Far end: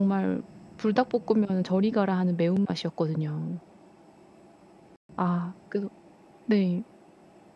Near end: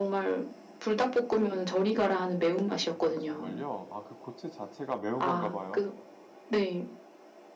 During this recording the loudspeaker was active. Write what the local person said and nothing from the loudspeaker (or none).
아 정말요? 아 그 고추 자체가 매운 건가 봐요?